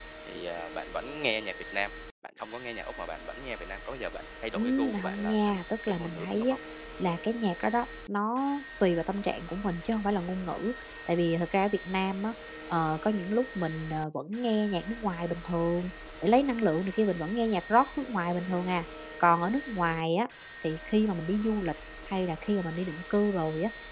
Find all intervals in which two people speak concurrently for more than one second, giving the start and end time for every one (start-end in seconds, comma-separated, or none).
4.5-6.5